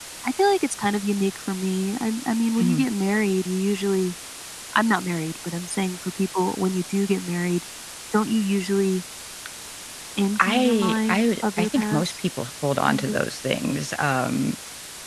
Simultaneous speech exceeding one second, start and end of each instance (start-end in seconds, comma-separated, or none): 10.4-12.1